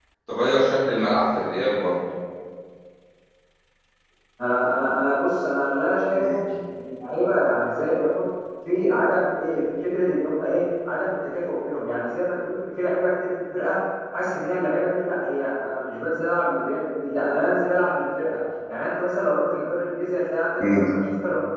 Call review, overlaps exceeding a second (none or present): none